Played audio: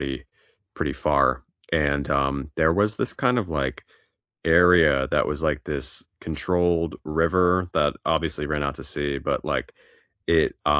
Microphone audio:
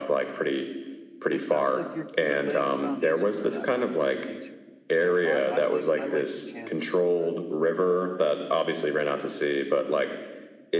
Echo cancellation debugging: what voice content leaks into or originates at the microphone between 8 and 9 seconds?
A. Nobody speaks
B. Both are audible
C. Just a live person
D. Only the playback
D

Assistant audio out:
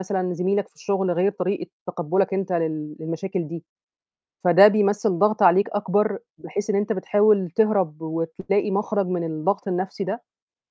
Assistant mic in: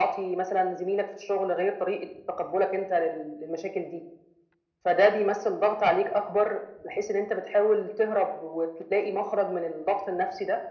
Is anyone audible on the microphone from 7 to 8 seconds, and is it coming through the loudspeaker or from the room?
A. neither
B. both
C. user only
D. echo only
D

